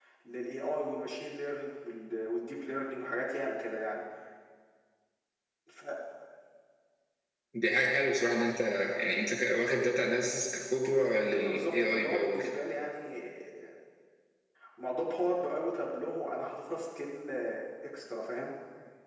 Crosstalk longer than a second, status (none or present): present